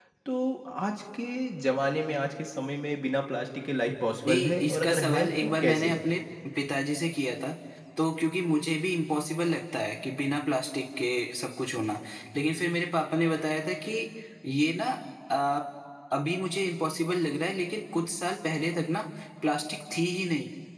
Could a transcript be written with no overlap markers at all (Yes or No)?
No